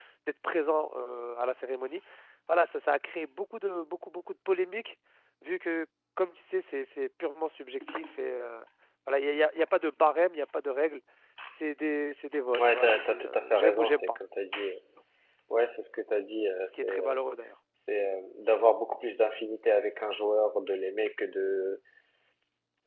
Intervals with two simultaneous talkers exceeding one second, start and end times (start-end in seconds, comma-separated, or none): 12.6-14.2